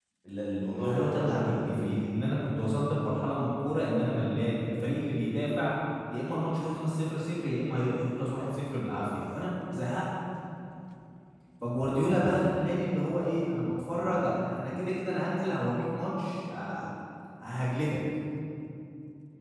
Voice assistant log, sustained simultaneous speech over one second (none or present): present